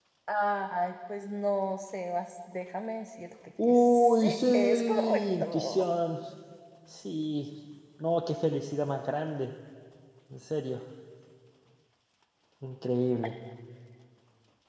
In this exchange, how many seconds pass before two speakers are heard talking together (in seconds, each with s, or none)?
3.6 s